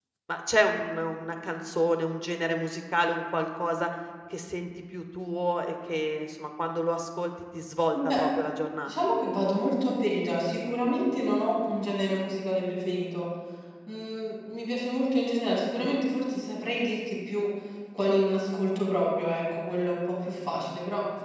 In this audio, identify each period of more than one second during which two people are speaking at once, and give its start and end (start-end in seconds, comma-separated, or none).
none